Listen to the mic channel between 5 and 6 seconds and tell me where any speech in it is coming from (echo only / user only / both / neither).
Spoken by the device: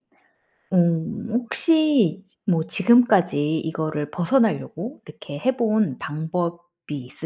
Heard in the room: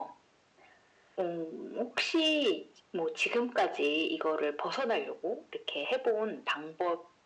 echo only